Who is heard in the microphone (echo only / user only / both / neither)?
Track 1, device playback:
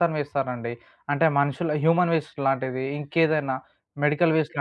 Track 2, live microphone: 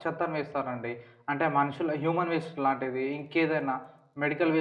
echo only